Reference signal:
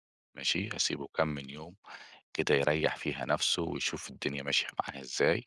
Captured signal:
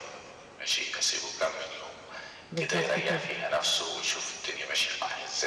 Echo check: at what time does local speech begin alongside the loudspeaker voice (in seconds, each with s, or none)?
2.5 s